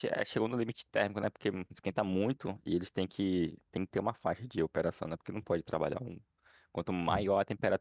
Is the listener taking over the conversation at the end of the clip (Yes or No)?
No